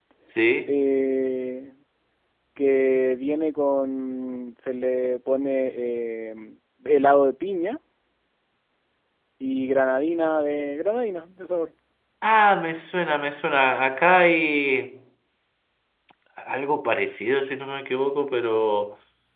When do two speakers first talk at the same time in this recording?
none

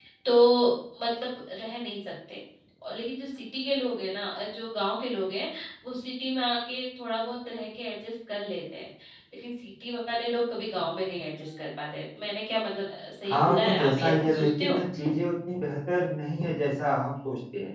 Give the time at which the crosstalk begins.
13 s

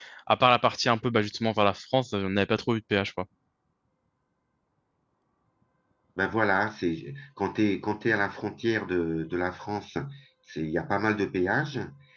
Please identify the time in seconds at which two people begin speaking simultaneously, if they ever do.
none

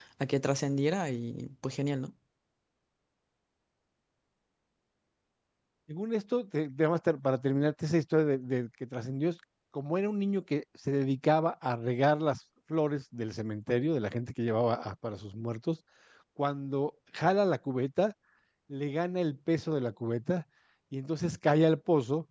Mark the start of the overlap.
none

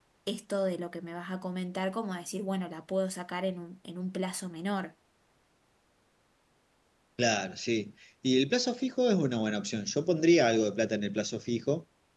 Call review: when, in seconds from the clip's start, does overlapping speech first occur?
none

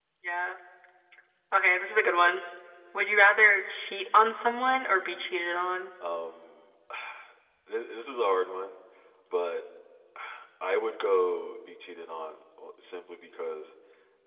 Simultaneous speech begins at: none

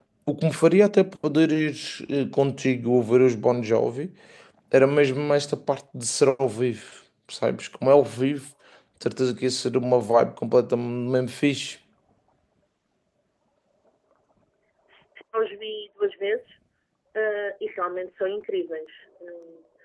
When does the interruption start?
none

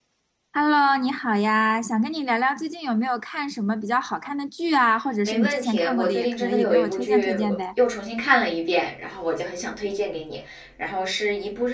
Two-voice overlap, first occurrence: 5 s

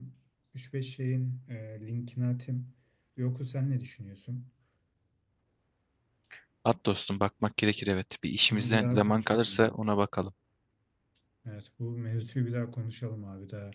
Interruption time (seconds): 9 s

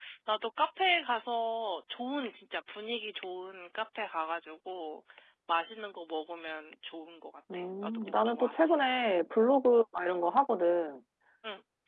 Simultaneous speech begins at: 7 s

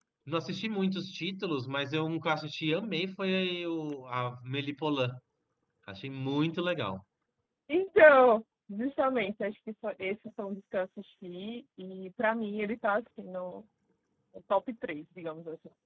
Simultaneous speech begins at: none

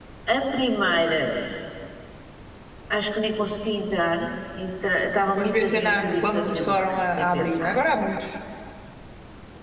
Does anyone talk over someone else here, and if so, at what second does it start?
5 s

